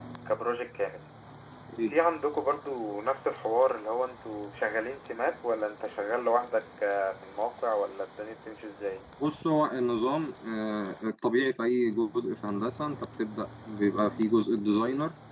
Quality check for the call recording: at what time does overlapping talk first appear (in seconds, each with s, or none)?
none